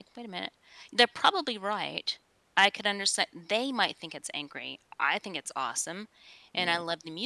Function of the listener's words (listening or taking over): listening